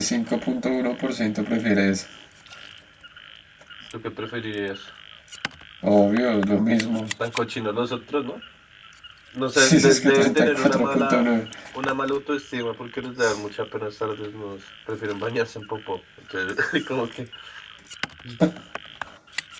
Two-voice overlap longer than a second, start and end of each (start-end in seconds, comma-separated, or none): 9.6-11.3